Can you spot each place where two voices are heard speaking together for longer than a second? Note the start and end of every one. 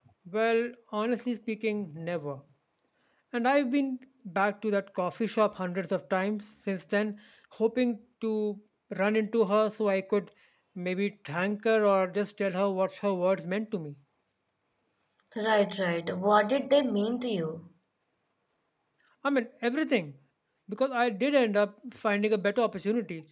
none

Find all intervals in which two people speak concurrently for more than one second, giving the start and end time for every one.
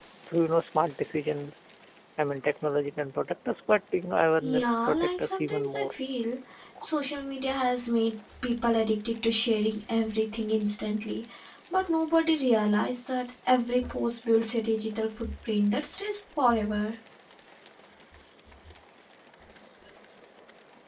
4.4-5.9

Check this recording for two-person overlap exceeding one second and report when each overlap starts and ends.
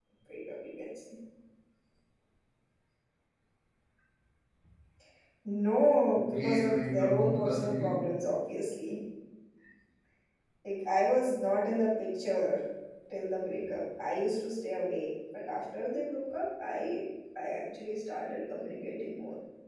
6.1-8.1

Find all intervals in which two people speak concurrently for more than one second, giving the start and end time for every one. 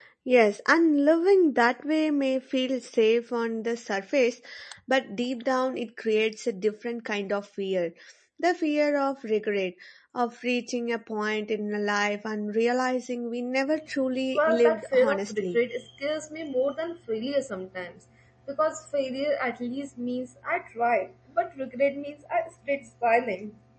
14.3-15.6

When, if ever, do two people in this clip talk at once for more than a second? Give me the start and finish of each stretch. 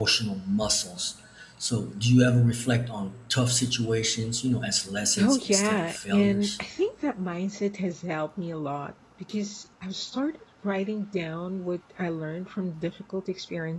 5.2-6.6

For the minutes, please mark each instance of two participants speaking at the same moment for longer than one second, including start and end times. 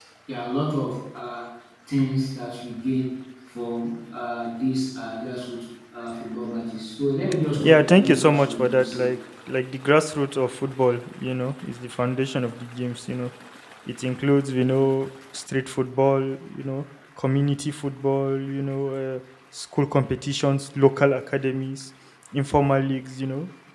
7.6-9.0

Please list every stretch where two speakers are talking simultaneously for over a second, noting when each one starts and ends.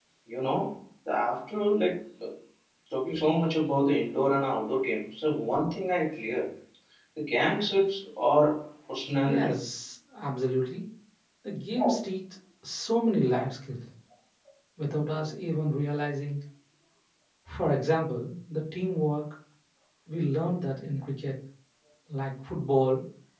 none

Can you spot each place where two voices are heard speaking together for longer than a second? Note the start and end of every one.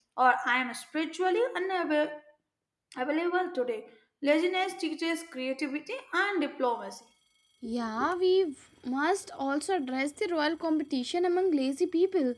none

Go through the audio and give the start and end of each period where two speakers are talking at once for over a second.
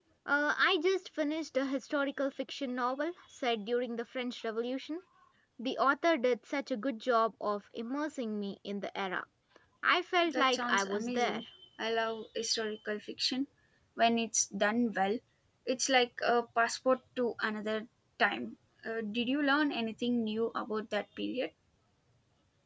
10.2-11.4

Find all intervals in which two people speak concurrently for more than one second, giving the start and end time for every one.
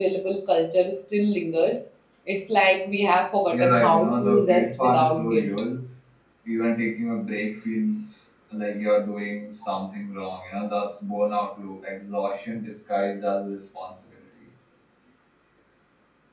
3.5-5.5

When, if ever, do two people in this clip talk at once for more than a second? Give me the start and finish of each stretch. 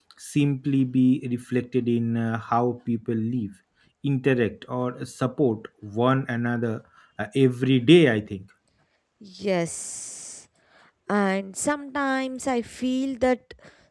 none

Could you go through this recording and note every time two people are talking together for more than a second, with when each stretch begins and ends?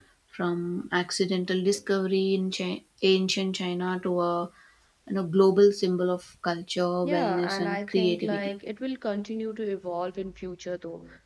7.0-8.5

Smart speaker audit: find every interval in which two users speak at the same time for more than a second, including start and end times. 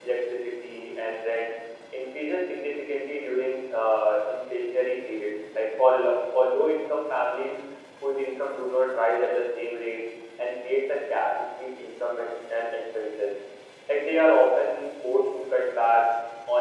none

